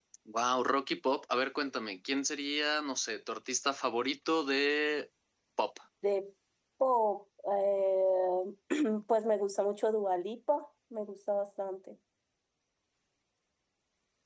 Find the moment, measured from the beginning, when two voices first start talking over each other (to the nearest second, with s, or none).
none